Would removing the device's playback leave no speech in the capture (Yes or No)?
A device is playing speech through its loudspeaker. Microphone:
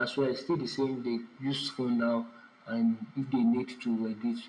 Yes